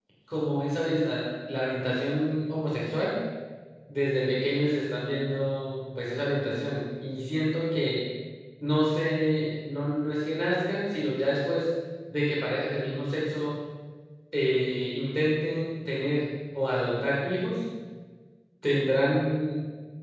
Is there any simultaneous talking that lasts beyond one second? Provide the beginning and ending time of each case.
none

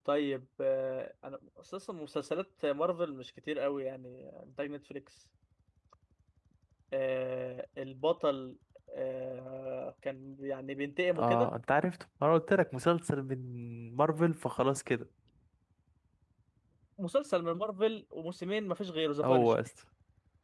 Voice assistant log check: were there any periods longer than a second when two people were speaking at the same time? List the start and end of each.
none

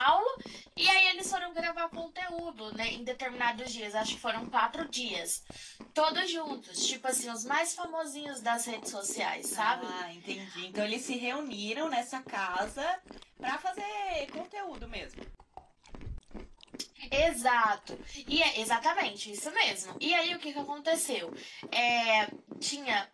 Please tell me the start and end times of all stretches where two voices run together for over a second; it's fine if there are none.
none

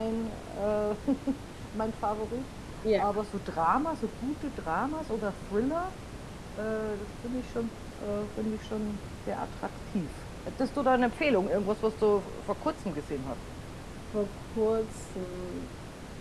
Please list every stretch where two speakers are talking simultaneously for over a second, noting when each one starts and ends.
none

